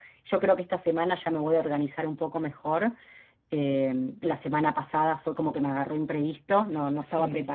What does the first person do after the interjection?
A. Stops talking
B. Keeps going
B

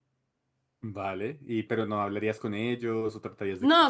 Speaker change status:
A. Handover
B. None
A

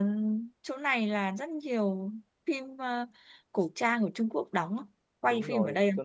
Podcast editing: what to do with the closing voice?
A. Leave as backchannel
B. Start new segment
B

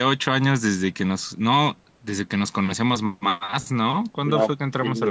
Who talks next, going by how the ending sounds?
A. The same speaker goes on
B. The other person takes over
B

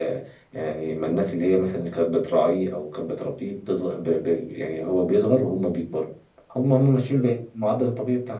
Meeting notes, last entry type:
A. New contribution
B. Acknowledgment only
B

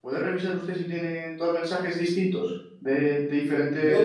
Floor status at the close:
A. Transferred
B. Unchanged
A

